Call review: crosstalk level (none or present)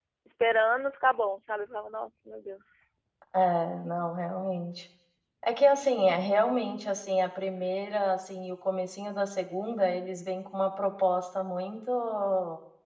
none